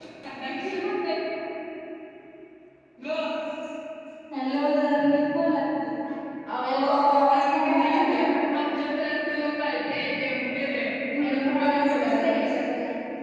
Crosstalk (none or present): present